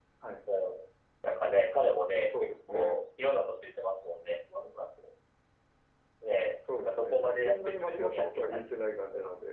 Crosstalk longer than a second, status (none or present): present